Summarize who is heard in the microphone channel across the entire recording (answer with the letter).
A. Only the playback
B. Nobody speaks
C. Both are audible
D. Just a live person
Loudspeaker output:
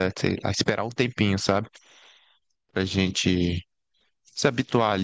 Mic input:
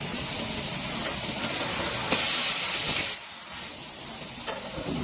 B